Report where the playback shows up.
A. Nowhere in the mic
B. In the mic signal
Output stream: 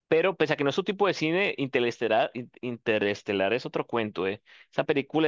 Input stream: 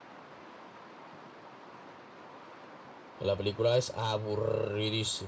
A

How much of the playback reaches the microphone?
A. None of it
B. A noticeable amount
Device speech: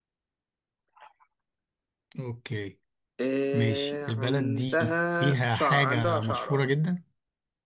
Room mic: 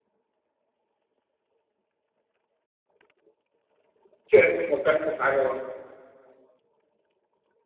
A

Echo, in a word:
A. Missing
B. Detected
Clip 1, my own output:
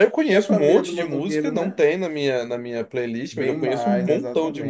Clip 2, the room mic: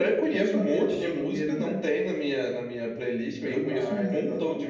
B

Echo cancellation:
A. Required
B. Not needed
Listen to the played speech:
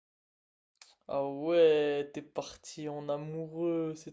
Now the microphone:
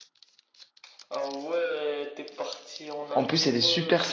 A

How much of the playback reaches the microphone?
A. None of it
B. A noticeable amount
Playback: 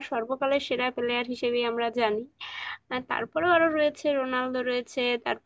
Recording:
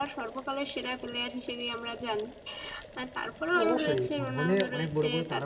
B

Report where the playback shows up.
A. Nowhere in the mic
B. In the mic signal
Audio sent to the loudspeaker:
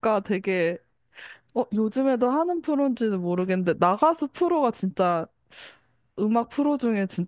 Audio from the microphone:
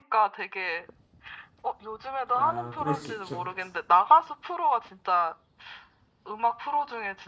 B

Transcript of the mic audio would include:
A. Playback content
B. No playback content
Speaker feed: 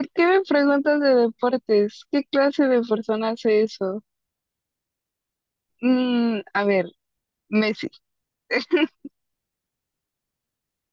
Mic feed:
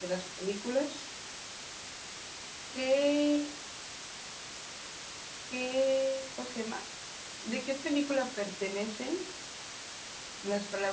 B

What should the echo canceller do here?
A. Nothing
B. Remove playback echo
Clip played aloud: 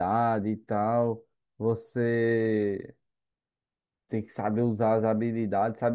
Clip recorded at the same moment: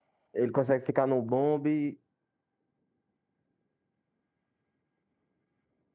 A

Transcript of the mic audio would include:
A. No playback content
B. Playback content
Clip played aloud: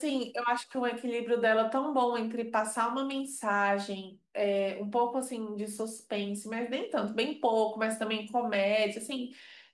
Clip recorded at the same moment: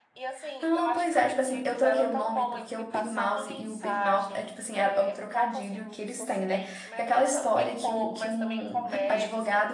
B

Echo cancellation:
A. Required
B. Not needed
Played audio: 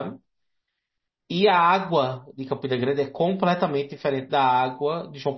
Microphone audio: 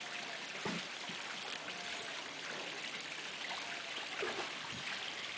B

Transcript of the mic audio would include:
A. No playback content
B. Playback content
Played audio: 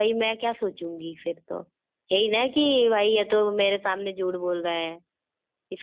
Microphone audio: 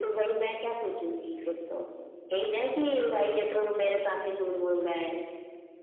B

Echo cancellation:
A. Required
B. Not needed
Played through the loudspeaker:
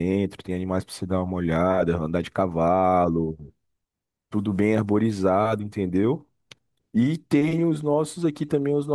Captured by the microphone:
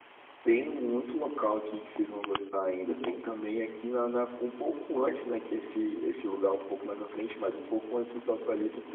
B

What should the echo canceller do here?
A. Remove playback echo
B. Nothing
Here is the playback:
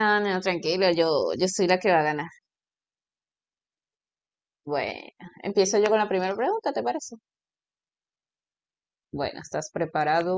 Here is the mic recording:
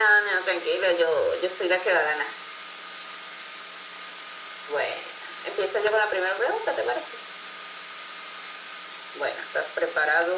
A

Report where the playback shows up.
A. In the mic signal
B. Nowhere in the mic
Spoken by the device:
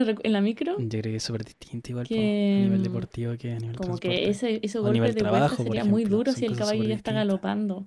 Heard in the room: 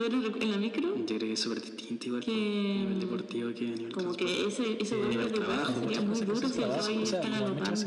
A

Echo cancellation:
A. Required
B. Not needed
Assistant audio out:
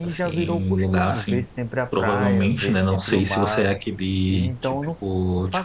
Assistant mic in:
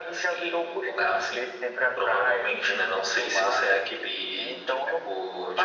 A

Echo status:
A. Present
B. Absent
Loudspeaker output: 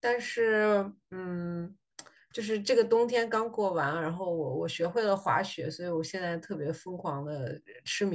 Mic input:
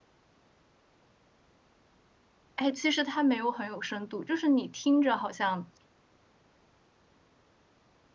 B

